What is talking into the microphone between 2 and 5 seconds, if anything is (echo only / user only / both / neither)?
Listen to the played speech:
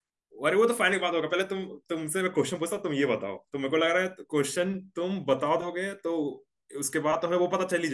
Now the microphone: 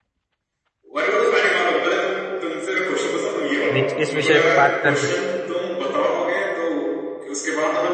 both